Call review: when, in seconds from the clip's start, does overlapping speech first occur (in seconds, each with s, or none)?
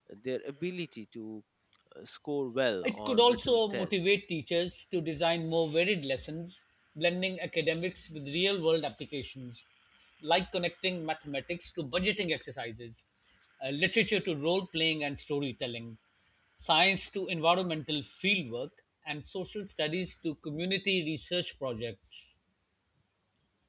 2.8 s